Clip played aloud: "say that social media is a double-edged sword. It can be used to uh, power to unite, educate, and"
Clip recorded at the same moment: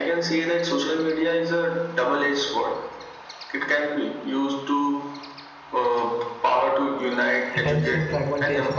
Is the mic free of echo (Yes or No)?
No